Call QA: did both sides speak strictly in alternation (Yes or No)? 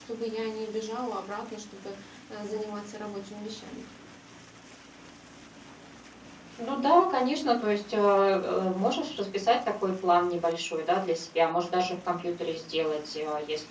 Yes